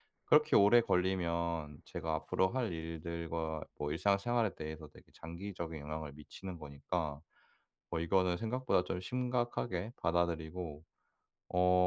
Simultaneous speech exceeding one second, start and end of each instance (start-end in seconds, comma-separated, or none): none